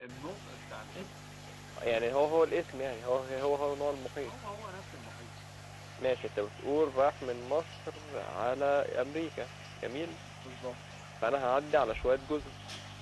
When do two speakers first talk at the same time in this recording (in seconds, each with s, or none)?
none